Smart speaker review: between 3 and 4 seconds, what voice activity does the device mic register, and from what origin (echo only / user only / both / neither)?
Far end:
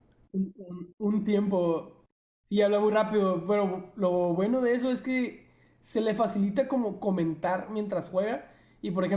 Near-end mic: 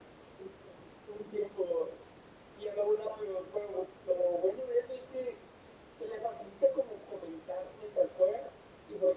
echo only